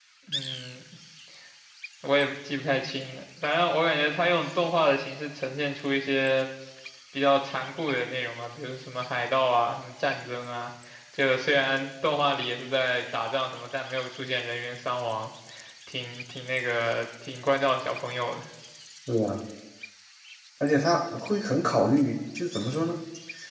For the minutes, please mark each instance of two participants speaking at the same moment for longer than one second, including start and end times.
none

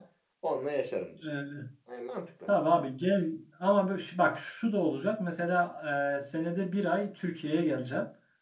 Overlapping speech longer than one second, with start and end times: none

